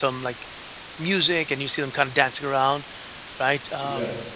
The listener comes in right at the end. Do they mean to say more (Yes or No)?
No